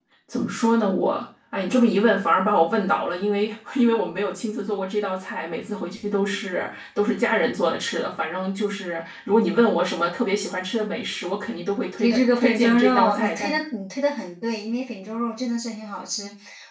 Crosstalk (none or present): present